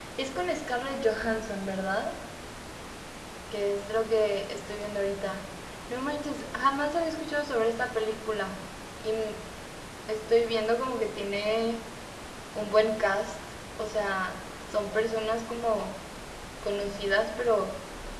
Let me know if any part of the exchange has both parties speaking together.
No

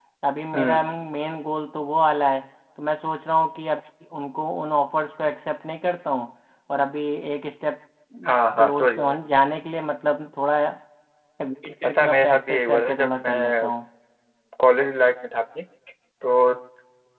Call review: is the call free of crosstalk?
No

